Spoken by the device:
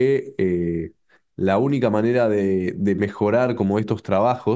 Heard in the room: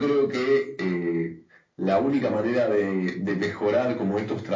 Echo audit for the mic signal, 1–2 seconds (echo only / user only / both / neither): echo only